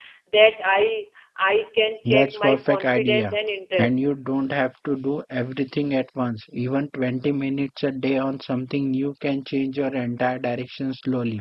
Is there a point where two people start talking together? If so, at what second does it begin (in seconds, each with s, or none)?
2.0 s